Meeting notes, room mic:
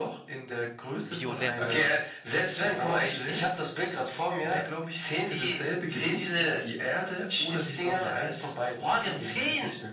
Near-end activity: present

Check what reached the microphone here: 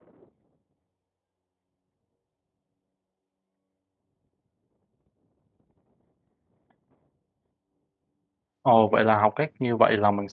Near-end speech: present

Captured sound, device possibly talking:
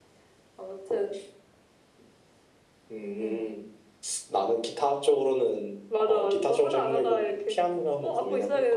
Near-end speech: none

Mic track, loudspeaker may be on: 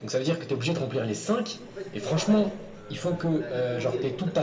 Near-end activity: present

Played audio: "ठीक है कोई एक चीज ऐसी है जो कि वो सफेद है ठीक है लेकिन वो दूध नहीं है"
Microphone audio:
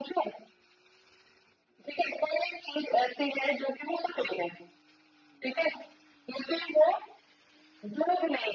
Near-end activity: none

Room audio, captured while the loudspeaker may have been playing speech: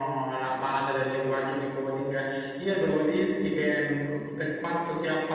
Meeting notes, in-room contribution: none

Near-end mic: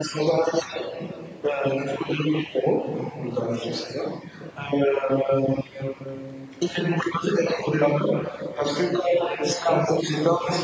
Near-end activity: none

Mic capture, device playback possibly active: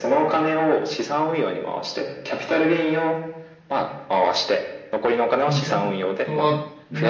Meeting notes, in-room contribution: present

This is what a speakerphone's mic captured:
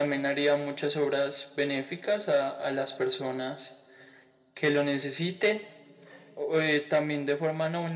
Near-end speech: none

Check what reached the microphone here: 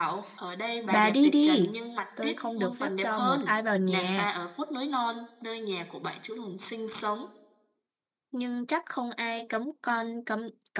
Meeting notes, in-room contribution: present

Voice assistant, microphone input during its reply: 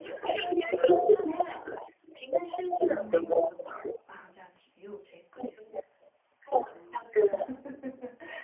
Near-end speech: present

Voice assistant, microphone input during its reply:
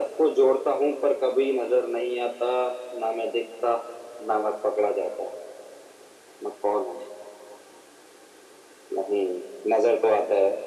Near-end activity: none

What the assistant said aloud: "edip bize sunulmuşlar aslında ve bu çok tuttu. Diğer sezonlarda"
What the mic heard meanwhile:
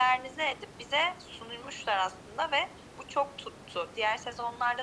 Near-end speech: none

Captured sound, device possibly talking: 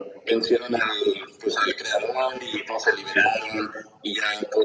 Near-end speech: none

